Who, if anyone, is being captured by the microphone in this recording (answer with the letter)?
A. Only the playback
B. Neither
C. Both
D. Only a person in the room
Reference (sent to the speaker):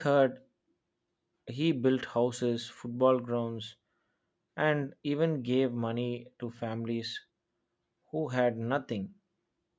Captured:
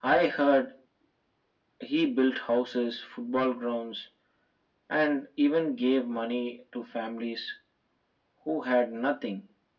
A